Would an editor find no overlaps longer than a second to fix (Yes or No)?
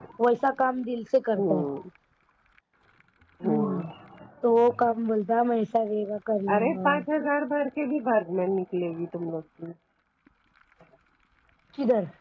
Yes